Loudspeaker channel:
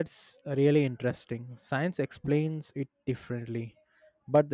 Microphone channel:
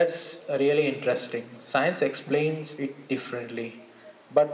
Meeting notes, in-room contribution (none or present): none